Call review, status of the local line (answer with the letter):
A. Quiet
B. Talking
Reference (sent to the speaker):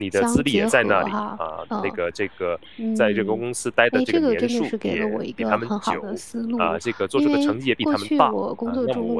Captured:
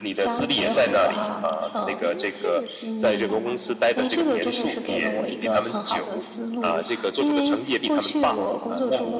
B